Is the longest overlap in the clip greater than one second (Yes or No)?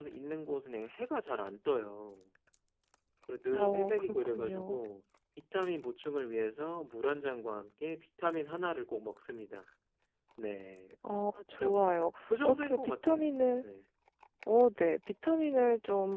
Yes